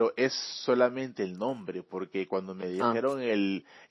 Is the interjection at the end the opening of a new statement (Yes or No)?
No